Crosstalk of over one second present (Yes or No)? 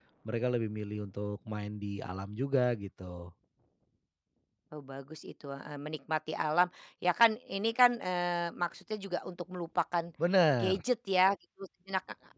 No